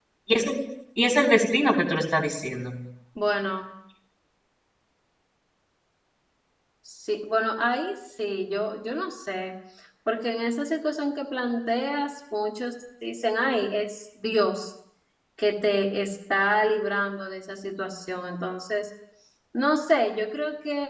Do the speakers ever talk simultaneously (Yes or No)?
No